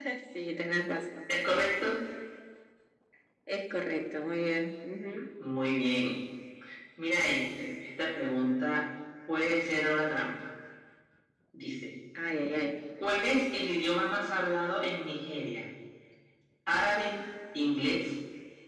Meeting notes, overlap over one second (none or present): none